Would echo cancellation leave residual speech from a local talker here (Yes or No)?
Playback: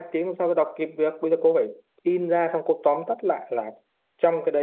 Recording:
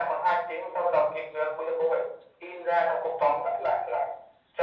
No